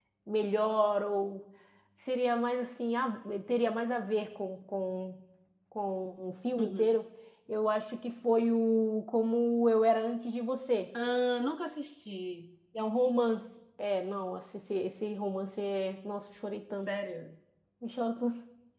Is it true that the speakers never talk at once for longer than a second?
Yes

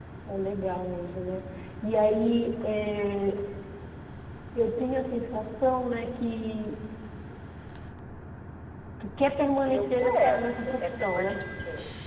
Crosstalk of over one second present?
Yes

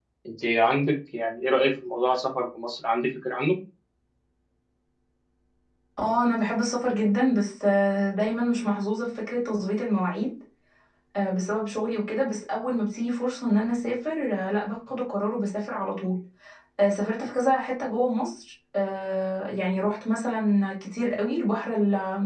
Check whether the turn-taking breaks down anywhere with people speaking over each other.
No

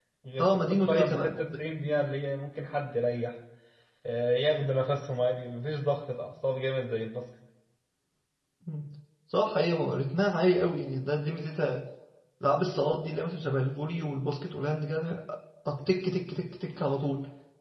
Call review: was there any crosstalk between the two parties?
Yes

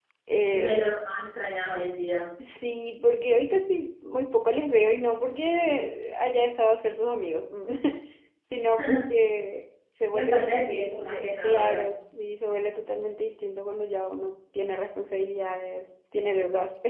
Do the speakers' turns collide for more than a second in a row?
Yes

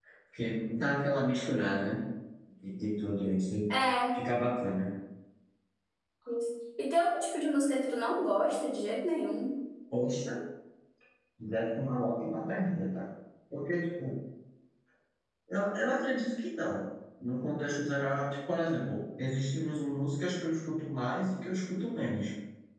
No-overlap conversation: Yes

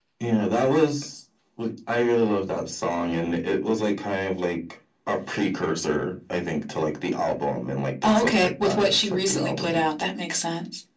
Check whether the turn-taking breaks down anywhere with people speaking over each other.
Yes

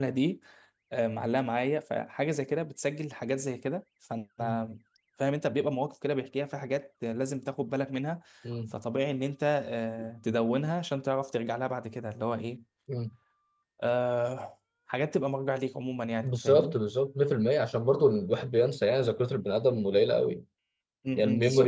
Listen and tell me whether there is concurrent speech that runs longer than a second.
No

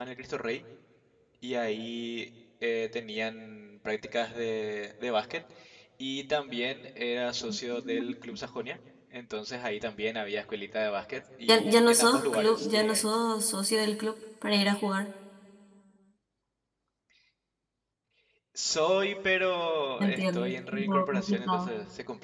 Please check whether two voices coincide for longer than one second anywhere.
Yes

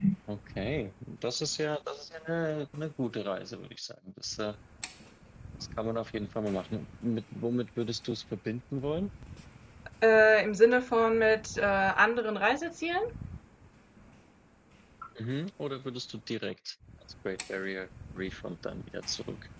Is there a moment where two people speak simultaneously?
No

